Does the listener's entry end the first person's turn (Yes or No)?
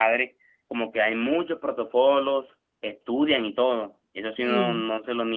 No